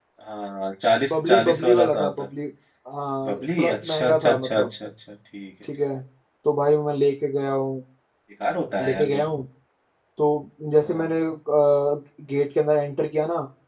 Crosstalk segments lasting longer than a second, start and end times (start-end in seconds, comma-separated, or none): 1.1-2.3, 3.2-4.7